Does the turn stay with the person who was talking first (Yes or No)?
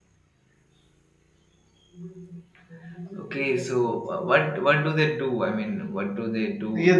No